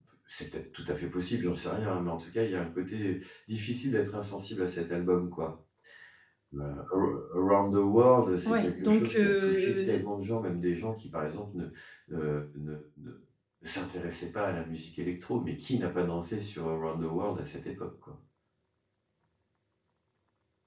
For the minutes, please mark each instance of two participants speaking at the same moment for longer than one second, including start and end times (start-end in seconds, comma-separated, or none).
8.4-10.0